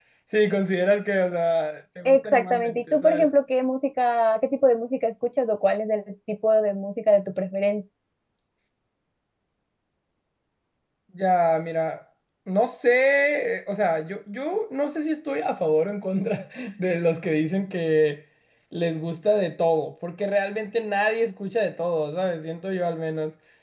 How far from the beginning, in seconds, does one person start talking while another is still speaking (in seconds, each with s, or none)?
2.0 s